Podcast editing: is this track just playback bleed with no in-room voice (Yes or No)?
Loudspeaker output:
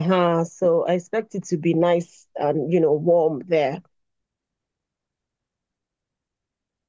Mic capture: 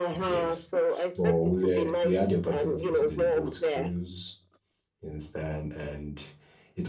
No